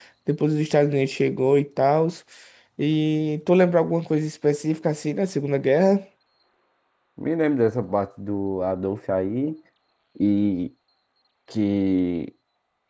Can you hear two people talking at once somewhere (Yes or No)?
No